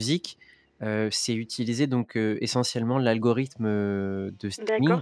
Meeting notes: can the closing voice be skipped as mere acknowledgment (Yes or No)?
No